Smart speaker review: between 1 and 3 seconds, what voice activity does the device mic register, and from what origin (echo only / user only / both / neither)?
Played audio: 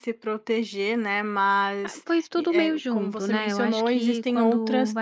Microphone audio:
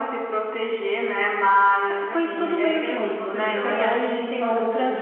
both